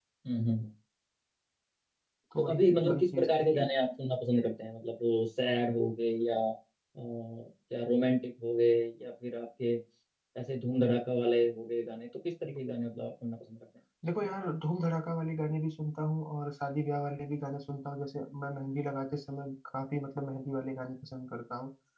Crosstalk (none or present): present